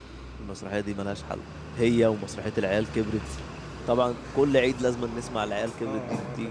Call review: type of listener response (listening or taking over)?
taking over